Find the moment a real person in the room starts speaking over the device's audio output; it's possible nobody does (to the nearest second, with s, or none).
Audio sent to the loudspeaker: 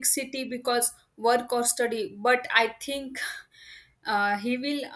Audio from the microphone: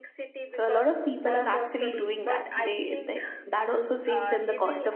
1 s